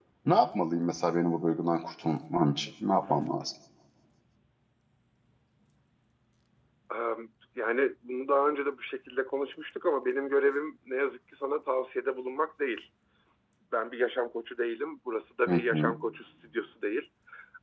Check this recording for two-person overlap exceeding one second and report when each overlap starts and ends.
none

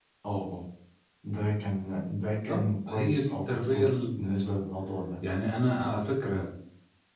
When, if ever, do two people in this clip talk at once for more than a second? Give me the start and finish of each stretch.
2.5-4.5

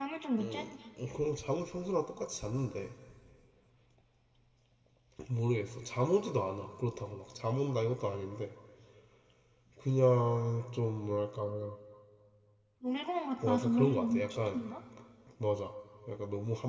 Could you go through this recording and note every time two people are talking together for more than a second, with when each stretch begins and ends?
13.4-14.6

